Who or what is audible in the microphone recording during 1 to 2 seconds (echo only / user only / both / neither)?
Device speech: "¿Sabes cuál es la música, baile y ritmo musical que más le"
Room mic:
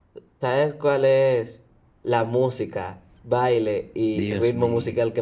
echo only